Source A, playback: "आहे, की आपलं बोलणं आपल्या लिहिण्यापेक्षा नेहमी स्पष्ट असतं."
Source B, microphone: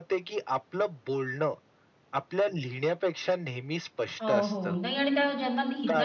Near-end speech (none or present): present